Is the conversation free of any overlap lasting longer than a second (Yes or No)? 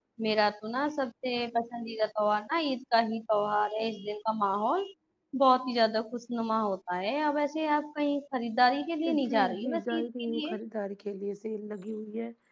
No